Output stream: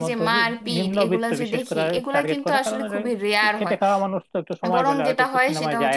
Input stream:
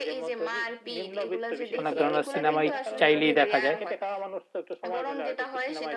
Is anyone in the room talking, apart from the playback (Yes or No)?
Yes